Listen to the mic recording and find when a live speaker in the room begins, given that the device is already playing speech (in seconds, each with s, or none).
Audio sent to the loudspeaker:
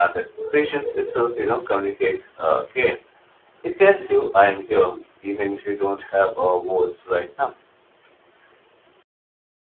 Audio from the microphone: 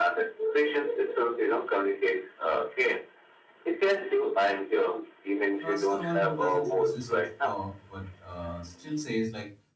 5.6 s